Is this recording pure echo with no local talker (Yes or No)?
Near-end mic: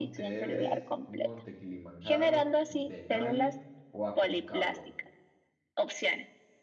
No